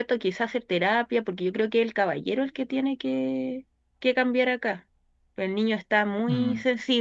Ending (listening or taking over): listening